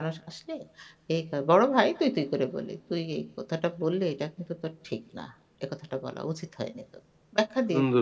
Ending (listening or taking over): taking over